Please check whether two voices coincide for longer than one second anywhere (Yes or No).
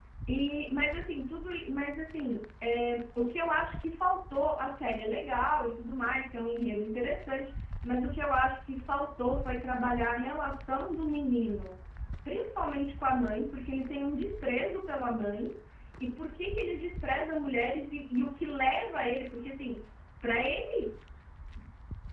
No